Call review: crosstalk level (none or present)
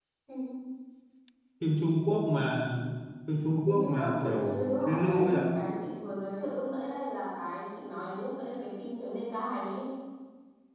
present